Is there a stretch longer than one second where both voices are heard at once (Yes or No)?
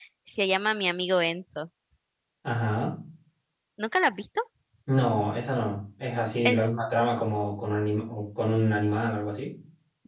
No